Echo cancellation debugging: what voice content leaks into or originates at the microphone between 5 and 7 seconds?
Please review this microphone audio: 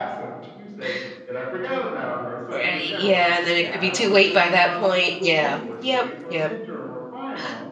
both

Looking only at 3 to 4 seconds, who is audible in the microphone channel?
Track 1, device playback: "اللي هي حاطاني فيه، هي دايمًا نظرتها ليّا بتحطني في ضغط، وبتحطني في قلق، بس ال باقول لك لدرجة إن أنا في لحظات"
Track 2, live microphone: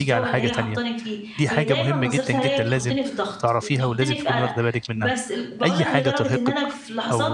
both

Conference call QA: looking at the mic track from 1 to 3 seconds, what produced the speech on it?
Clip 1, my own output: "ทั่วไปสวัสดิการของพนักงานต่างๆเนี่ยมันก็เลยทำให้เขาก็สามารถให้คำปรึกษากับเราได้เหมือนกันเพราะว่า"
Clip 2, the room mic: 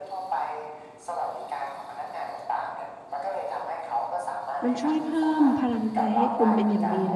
echo only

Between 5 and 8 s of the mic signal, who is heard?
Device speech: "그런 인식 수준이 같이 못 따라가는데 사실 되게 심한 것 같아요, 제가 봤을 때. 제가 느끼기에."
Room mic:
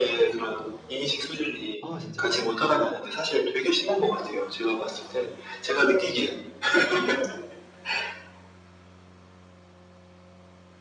echo only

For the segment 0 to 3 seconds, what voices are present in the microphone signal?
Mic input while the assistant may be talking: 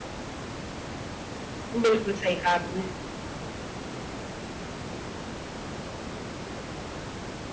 user only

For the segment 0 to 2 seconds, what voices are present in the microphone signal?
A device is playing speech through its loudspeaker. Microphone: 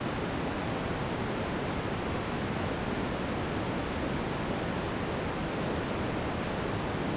neither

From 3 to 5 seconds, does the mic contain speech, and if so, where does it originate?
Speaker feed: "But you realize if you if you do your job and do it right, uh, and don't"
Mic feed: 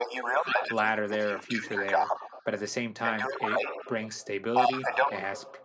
both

